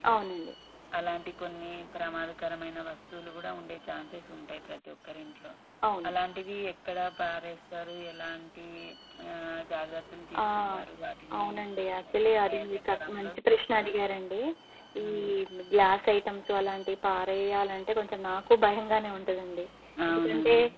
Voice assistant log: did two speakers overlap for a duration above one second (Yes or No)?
Yes